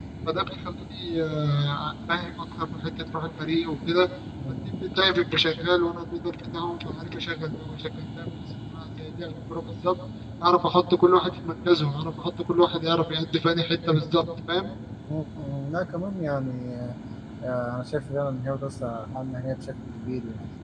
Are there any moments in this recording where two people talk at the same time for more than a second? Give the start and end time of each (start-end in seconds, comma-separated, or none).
none